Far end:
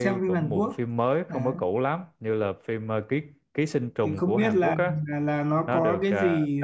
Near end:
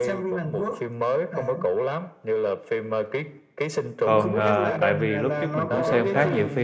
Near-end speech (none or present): present